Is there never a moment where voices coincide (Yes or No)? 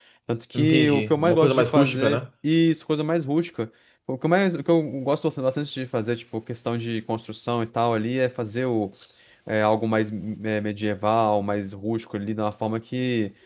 No